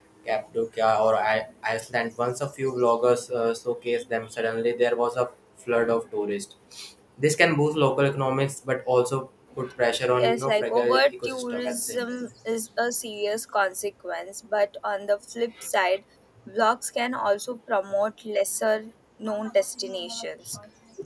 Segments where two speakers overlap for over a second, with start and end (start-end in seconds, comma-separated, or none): 10.1-12.1